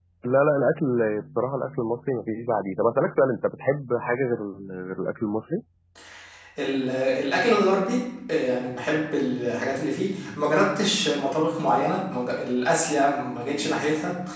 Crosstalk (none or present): none